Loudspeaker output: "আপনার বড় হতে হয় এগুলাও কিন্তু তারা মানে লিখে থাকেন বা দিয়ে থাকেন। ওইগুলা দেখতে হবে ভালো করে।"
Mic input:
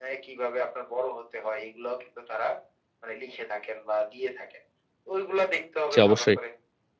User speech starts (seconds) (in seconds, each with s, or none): 5.9 s